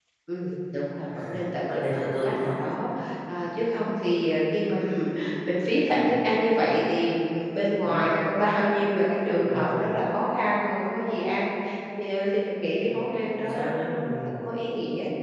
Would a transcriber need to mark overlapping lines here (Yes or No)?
Yes